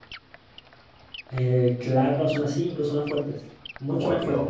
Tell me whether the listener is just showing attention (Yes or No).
No